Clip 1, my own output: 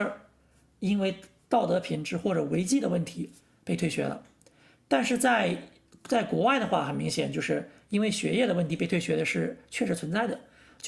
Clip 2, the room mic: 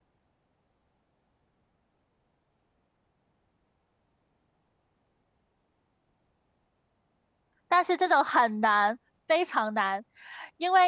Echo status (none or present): none